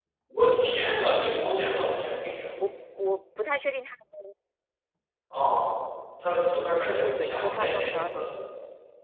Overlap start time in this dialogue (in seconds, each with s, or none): 6.8 s